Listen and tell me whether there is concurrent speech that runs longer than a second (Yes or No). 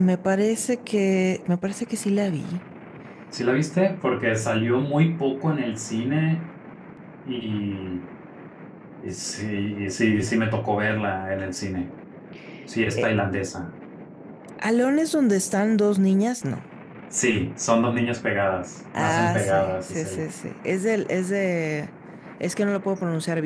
Yes